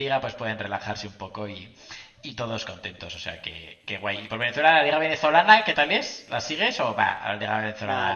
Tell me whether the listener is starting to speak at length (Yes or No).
Yes